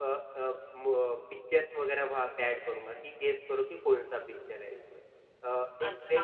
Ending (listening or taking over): taking over